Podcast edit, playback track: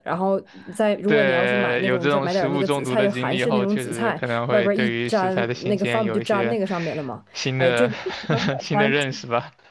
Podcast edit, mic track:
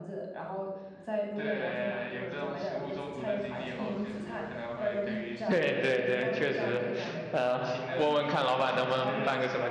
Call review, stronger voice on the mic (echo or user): user